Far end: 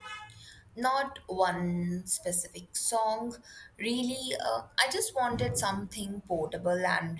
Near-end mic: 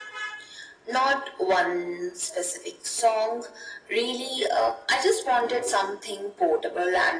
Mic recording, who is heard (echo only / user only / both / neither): echo only